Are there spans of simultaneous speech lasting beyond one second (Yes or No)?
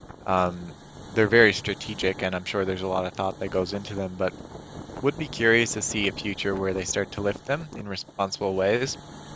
No